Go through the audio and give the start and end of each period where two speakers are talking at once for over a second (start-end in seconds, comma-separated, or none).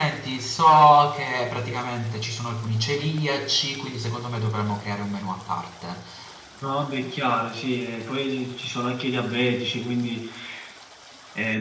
none